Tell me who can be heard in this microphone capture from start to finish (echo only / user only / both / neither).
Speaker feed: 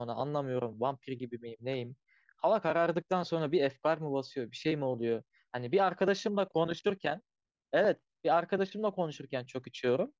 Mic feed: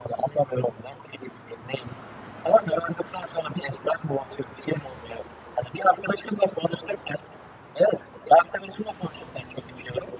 echo only